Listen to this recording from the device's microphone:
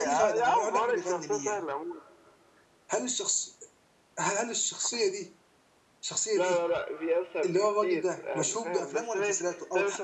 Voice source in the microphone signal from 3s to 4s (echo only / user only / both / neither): user only